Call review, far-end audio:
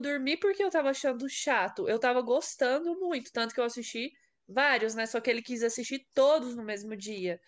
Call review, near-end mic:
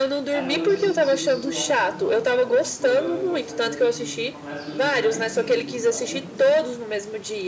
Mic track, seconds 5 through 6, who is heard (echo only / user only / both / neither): both